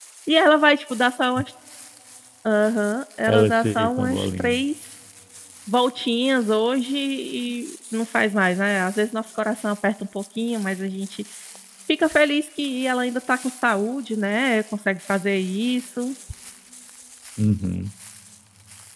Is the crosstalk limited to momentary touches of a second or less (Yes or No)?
No